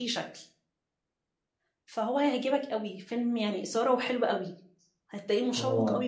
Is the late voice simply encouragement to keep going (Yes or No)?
Yes